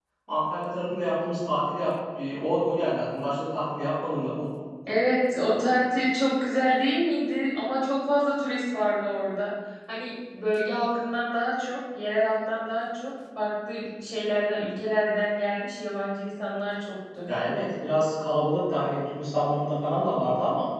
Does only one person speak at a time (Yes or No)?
Yes